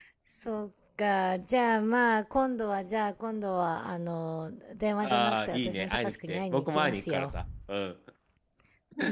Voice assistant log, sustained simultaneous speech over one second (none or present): present